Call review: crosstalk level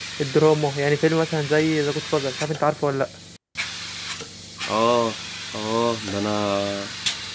none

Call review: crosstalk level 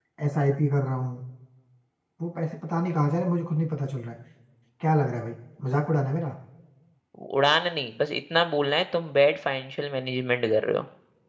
none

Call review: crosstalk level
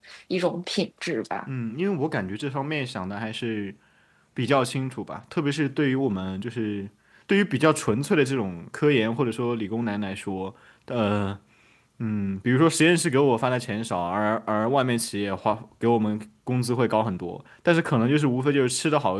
none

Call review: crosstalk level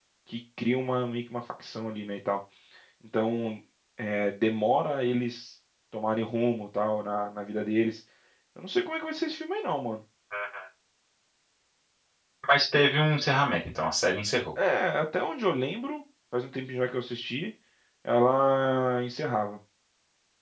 none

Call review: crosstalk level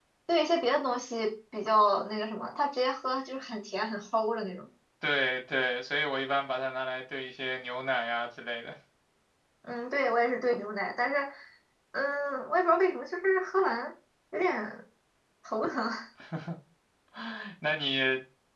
none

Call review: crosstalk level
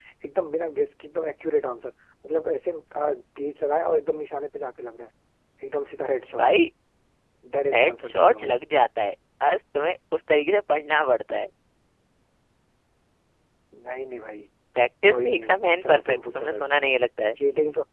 present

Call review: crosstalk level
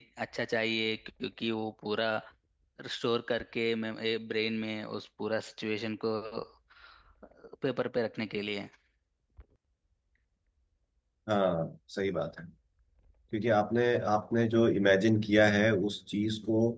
none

